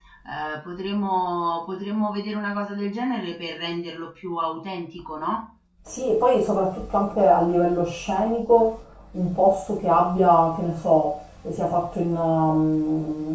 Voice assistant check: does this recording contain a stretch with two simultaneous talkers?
No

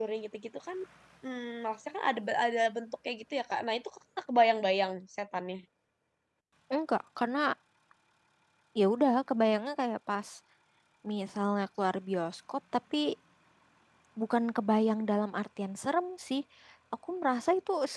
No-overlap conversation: Yes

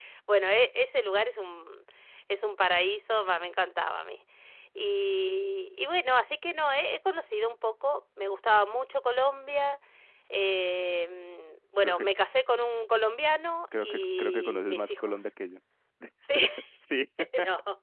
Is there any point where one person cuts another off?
Yes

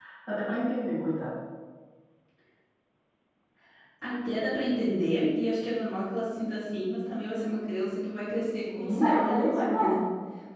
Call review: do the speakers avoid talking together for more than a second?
No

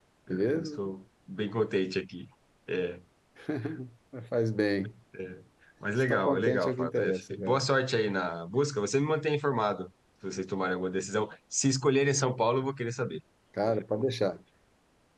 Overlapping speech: Yes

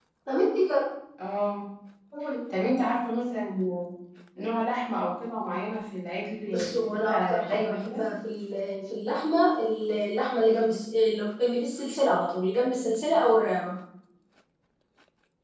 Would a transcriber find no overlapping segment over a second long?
No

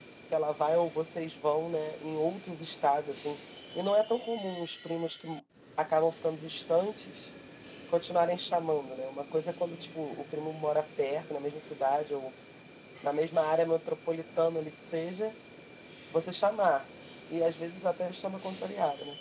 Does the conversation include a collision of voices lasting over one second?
No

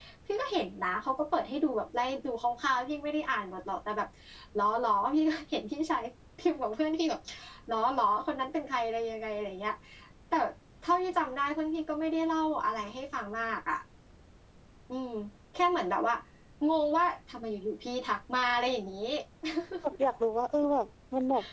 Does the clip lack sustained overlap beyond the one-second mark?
Yes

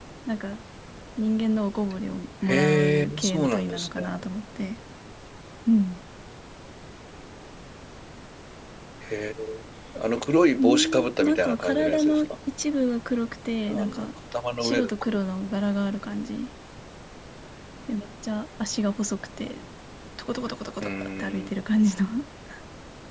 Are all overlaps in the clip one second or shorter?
No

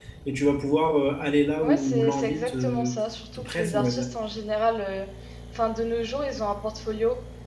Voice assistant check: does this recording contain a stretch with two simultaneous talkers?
Yes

